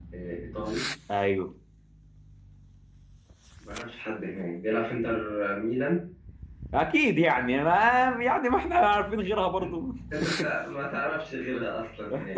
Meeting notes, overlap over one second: none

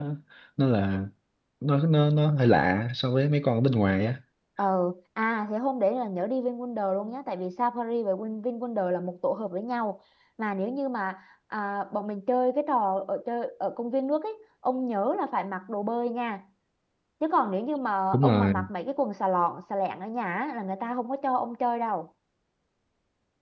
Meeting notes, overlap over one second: none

